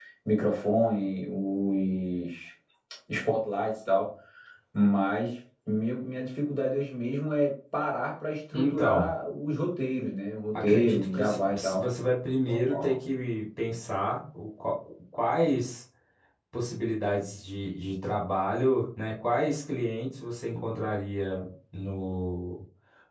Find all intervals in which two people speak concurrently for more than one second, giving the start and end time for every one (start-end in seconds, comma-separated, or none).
10.6-11.8